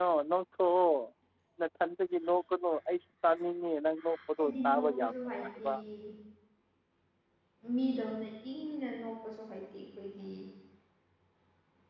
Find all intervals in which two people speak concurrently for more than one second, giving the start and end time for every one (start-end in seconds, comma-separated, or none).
4.4-5.7